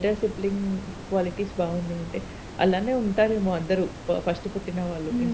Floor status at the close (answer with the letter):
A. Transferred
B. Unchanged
A